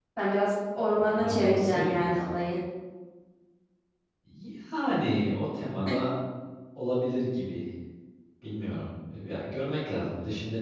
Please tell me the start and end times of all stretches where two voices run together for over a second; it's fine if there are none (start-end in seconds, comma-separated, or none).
0.9-2.4